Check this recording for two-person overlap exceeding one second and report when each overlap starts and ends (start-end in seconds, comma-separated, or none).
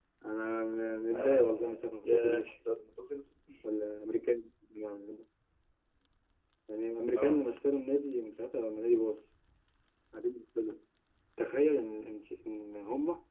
1.1-2.6